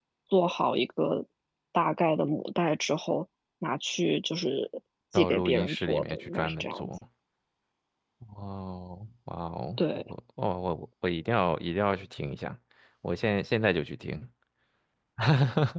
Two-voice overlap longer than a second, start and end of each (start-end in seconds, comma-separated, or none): 5.1-6.9